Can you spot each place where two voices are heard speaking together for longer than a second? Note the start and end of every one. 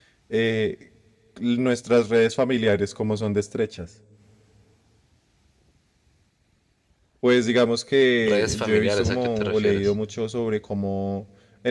8.2-10.0

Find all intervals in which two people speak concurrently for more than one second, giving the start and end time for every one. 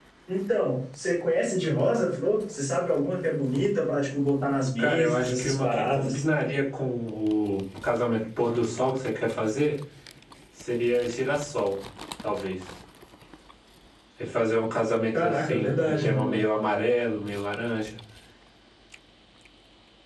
4.8-6.2, 15.2-16.5

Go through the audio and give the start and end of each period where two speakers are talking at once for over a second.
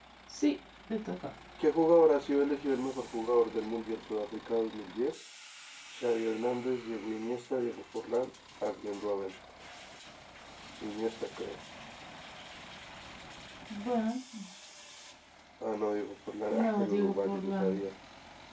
16.5-17.8

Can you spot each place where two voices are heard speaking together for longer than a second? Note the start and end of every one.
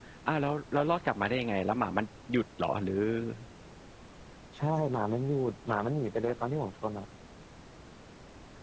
none

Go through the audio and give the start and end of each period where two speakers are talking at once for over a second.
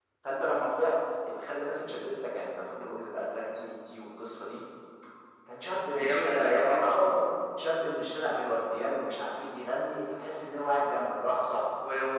5.9-7.2

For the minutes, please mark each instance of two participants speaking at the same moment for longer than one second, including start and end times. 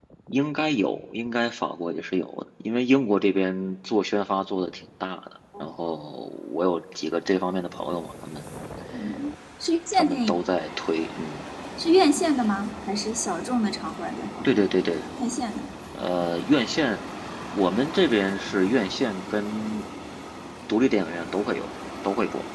none

